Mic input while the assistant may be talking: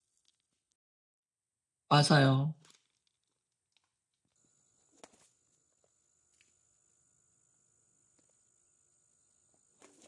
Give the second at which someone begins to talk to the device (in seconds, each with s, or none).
1.9 s